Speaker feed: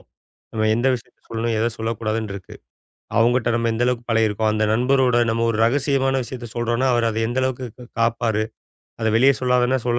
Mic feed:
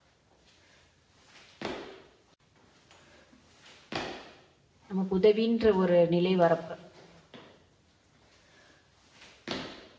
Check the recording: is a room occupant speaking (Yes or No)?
Yes